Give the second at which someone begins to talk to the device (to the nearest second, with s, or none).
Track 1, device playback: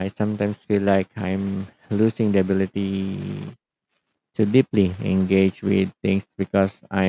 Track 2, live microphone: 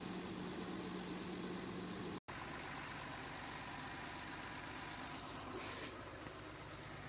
none